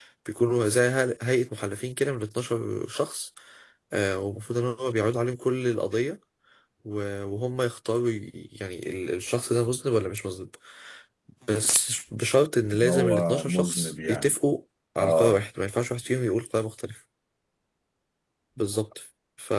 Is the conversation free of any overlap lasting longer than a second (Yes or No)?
No